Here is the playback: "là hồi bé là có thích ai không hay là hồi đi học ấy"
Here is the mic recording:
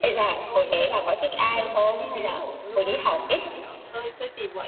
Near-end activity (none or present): present